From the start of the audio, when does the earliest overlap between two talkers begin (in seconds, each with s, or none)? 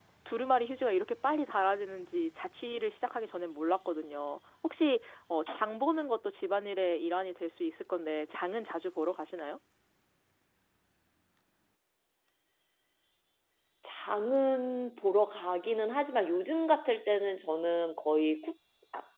none